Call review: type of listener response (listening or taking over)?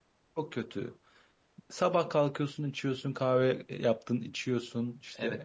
taking over